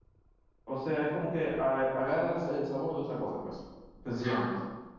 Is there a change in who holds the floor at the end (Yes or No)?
Yes